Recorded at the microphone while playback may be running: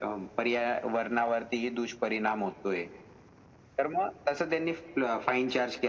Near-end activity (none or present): none